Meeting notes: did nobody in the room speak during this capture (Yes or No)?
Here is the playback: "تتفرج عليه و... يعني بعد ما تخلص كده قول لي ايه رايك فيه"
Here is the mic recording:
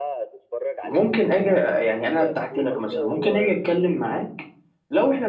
No